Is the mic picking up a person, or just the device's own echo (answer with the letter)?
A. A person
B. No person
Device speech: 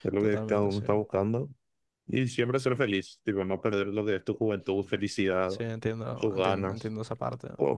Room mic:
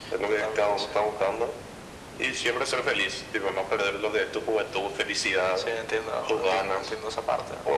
B